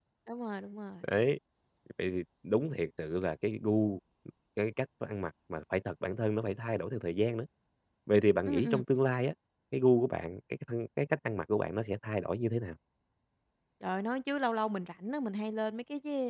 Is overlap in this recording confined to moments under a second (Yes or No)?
Yes